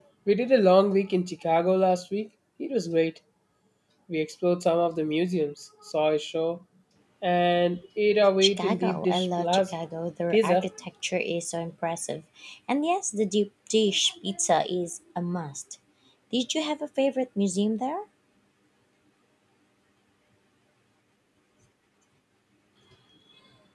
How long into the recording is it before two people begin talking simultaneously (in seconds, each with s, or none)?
8.4 s